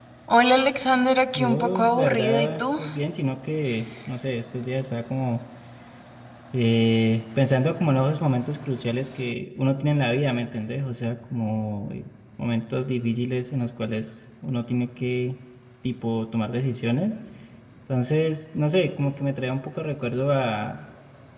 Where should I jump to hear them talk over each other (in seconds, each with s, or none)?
1.4 s